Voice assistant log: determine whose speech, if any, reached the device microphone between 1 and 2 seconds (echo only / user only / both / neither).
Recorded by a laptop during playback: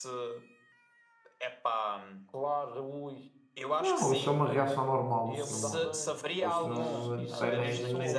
echo only